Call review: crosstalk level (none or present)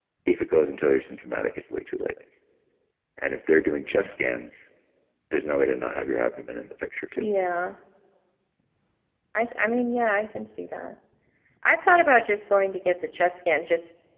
none